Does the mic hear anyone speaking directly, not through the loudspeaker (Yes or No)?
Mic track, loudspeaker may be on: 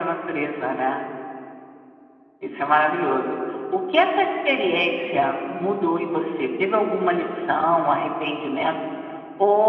No